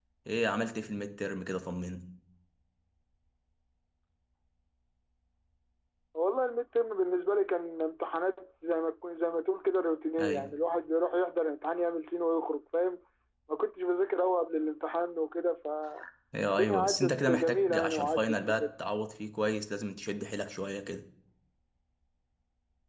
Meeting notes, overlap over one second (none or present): present